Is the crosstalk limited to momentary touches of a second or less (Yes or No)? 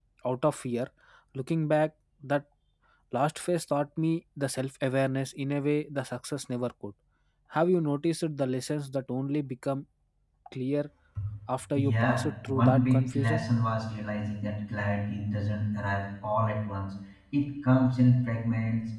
No